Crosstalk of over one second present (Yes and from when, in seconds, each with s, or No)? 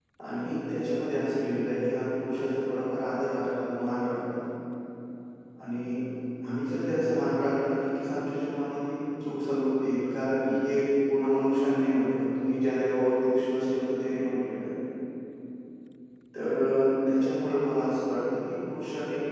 No